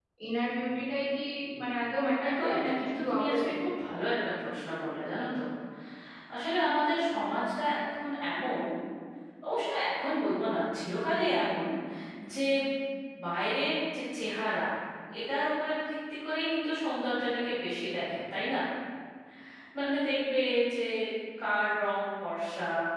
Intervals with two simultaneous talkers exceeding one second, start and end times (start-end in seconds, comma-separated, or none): 2.2-3.7